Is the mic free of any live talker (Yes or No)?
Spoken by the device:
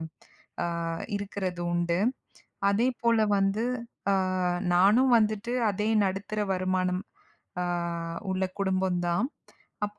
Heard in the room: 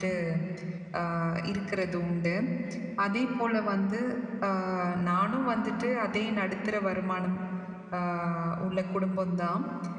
Yes